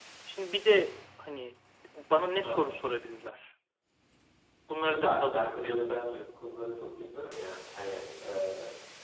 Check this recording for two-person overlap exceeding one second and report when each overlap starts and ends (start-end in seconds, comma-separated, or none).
4.8-6.3